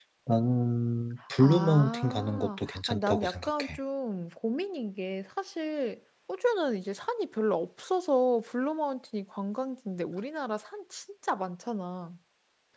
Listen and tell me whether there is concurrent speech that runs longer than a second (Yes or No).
Yes